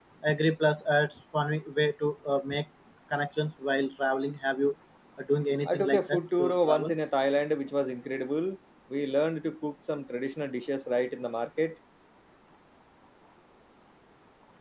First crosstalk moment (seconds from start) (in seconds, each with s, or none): 5.7 s